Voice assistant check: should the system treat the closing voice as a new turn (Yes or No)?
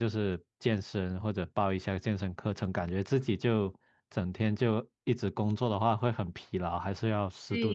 Yes